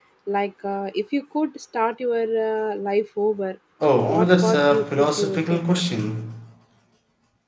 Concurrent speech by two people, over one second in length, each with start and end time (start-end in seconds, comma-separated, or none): 4.0-5.6